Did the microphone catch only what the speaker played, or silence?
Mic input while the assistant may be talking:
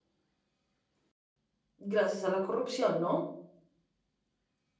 No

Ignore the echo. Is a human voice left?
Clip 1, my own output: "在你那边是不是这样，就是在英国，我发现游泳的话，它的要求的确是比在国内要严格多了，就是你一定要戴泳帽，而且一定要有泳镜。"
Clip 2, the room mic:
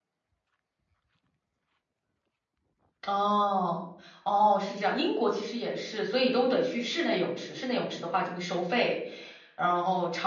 Yes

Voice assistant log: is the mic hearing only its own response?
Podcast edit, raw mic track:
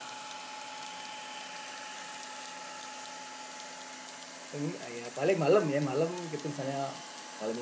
No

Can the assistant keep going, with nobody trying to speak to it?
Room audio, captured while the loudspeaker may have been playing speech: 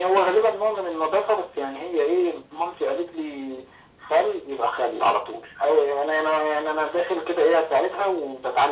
Yes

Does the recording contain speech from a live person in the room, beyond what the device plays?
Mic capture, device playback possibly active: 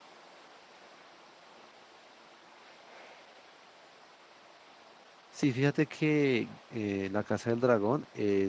Yes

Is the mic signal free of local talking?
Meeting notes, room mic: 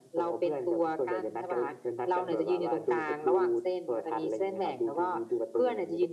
Yes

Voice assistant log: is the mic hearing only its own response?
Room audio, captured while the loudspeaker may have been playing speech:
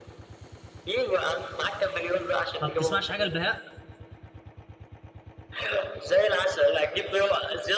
No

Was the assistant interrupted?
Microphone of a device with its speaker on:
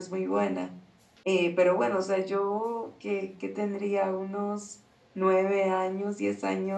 Yes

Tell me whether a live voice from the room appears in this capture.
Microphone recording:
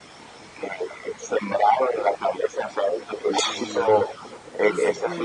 Yes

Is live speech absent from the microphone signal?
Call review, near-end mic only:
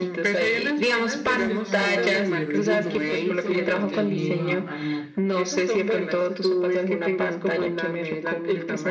No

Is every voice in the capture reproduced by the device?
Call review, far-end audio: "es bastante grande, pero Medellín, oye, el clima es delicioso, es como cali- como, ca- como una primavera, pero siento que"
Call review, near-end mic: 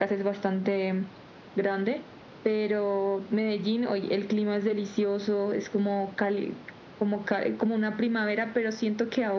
Yes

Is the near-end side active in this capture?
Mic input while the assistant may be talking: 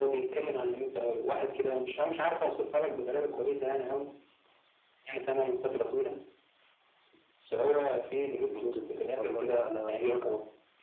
Yes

